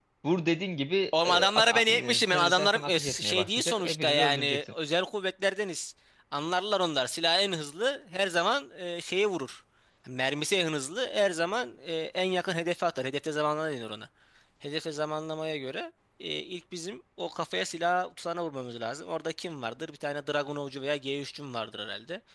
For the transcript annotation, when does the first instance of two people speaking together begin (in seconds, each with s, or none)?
1.2 s